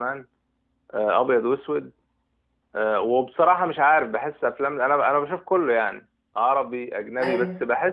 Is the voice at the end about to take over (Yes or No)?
No